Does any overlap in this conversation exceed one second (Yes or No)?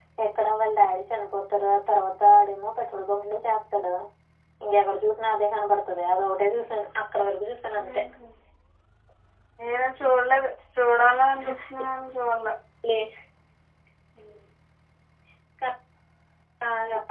No